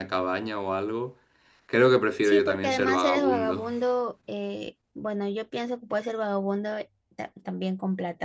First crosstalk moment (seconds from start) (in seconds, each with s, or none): 2.2 s